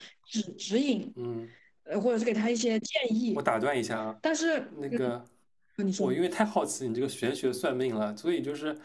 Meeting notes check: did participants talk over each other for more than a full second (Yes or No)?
No